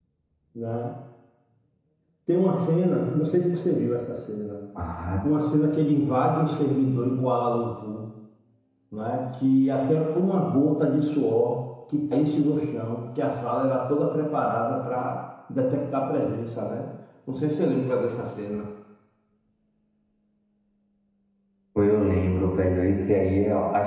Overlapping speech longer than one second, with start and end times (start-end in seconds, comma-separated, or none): none